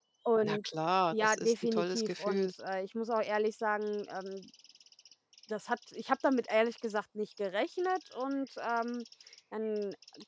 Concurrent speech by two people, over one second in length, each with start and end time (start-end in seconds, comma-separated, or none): 1.1-2.5